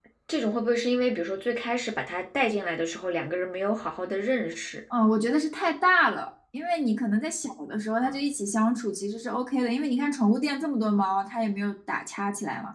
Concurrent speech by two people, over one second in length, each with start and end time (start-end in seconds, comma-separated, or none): none